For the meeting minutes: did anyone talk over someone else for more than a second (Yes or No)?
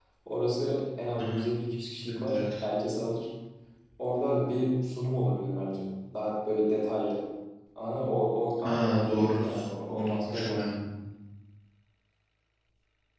Yes